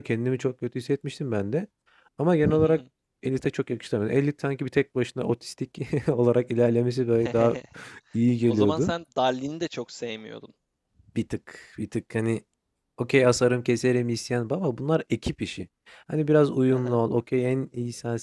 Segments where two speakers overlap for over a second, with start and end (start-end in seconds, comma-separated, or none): none